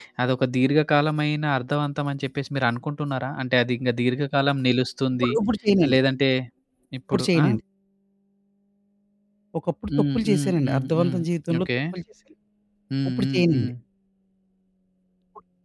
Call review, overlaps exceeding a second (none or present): present